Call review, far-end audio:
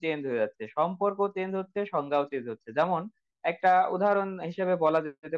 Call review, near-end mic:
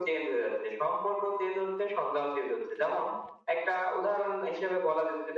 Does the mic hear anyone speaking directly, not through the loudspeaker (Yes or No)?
No